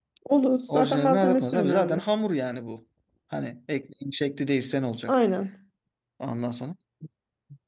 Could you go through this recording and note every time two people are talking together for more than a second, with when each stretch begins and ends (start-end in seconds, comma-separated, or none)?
0.7-2.0